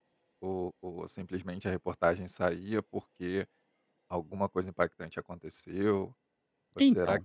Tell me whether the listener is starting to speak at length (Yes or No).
No